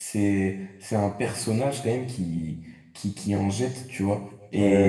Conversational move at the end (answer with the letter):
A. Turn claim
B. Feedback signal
B